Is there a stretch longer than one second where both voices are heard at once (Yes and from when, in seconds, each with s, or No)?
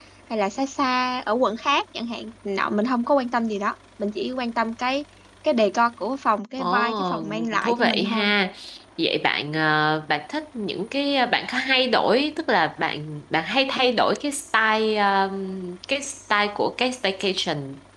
Yes, from 6.6 s